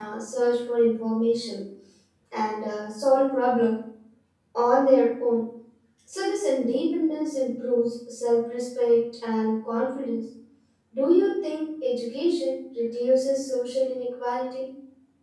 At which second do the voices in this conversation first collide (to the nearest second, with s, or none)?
none